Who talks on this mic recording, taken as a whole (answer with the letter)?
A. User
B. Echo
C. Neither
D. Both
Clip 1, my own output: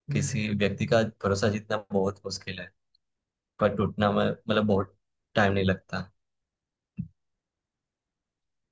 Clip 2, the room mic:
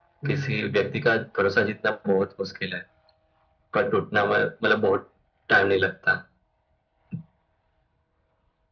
B